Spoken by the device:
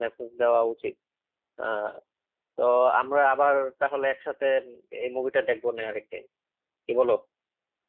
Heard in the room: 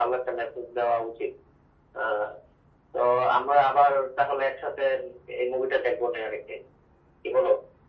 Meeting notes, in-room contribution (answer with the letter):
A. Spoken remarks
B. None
B